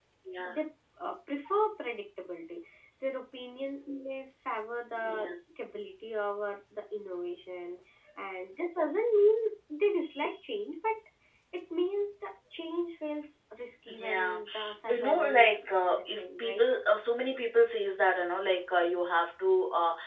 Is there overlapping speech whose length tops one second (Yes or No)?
Yes